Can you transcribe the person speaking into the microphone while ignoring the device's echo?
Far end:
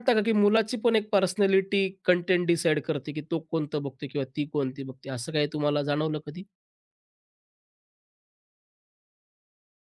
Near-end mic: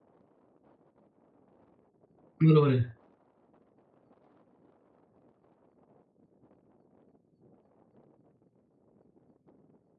बरोबर आहे.

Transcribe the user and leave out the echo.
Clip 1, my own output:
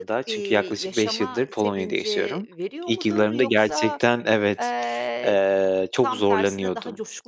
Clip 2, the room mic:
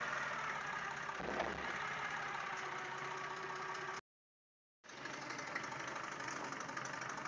none

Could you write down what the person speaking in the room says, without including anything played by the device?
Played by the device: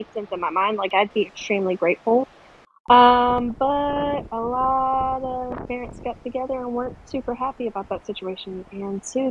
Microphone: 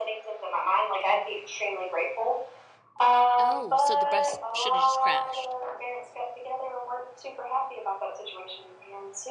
Oh, so the bus shoulda just crashed.

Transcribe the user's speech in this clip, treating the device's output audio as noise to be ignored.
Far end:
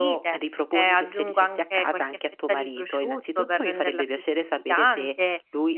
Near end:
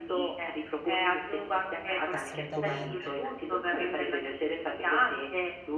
Assolutamente,

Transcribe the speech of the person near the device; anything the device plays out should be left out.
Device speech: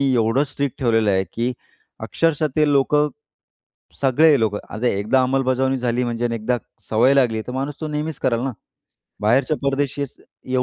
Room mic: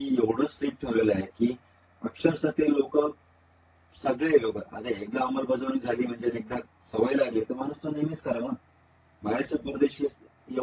none

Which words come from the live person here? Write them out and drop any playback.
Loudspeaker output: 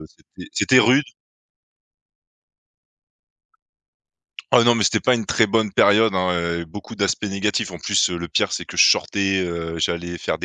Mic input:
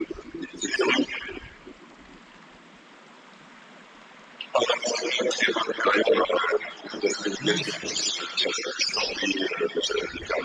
Mince!

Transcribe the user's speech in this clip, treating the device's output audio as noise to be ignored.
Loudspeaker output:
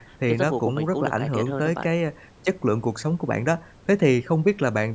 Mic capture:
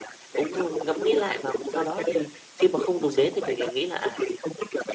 cũng ngẫm nghĩ lại và sau đó thì khi mà không dùng đến thì mình lại nghĩ là, à,

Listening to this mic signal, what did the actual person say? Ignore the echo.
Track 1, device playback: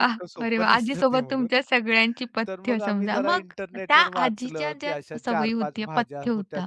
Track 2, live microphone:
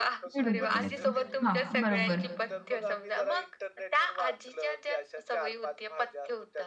मिळून करायचं. हां, बरोबर.

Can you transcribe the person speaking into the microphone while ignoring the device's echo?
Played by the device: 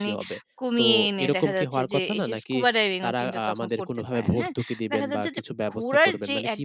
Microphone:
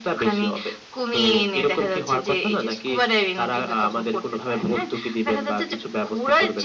none

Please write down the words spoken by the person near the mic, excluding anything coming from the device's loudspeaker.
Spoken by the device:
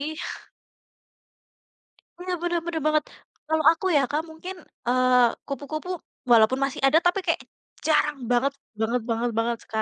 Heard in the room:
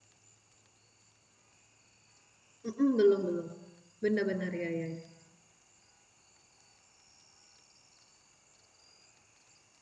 Mhm, belum belum. Benar-benar ya ya.

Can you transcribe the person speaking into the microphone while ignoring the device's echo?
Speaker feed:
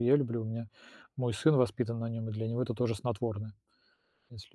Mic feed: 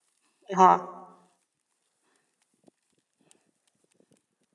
Ага,

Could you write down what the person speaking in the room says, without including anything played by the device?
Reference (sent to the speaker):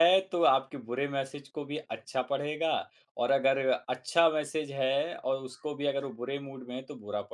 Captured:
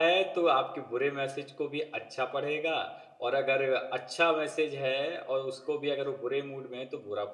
none

